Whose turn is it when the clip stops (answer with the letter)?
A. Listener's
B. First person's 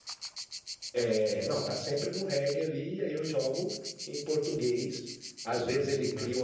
B